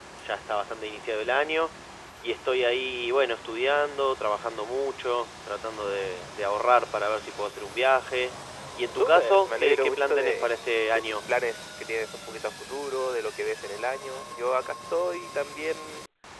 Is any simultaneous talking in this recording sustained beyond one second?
Yes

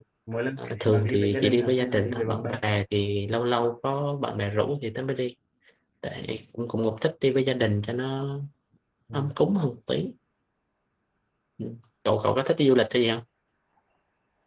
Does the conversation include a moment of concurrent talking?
Yes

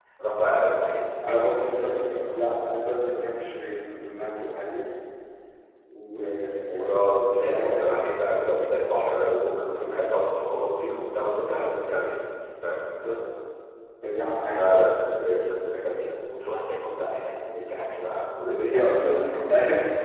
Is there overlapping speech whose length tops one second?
Yes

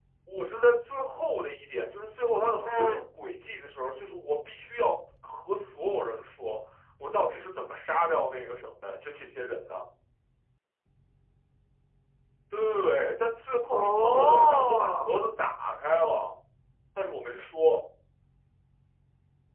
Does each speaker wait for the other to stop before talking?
No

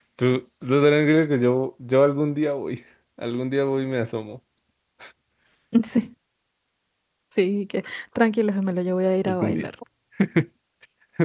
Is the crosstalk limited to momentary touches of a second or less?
Yes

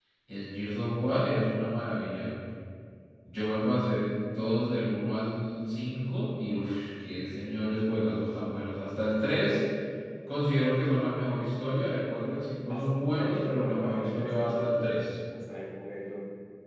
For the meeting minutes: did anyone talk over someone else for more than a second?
Yes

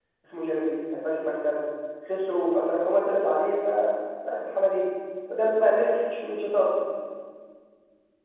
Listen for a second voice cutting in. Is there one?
No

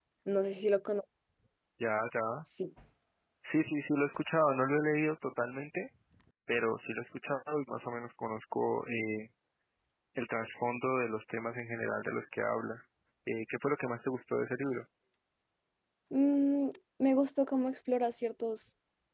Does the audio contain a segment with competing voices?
No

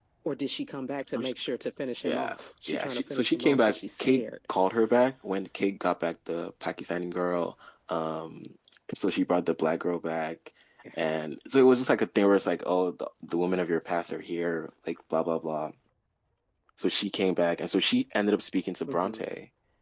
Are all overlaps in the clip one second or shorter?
No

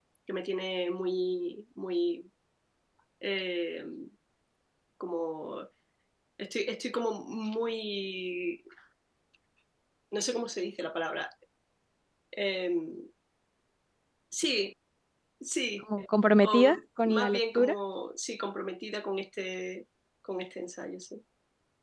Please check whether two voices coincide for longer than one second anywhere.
Yes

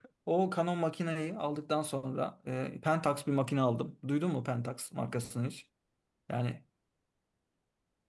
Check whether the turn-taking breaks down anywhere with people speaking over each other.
No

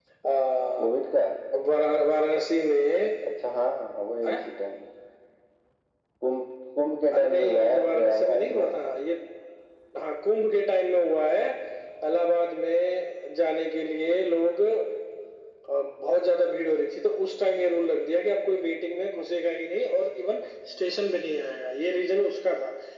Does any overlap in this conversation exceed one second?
Yes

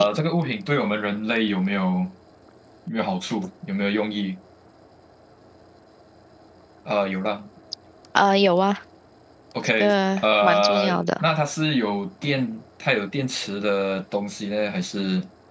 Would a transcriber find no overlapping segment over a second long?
No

